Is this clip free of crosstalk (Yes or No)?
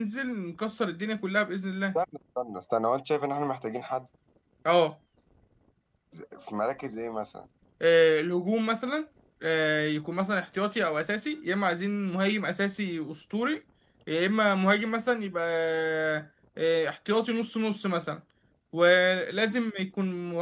Yes